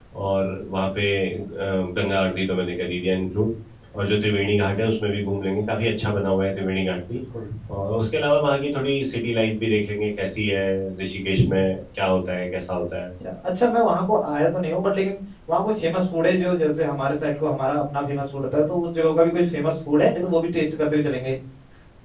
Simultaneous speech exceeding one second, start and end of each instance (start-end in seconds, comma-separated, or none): none